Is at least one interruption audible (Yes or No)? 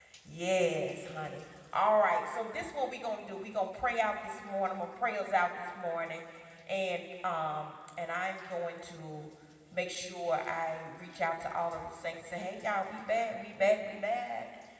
No